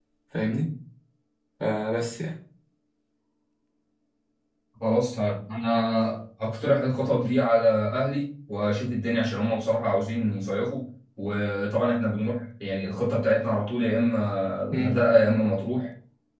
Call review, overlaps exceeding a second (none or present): none